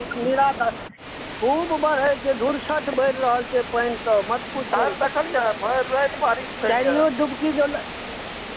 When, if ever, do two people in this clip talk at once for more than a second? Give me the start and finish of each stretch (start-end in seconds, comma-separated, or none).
none